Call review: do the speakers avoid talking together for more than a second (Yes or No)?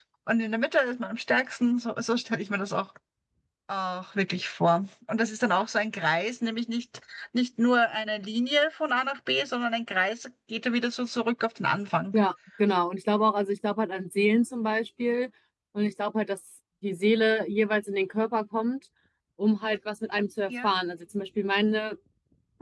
Yes